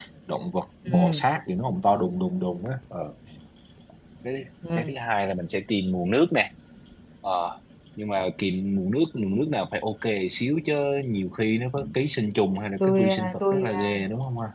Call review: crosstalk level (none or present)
present